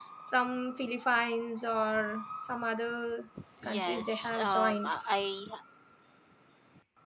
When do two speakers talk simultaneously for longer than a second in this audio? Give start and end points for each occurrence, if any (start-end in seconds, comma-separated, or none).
3.6-5.0